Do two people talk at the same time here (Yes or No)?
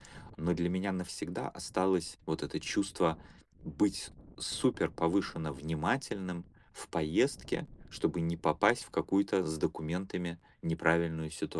No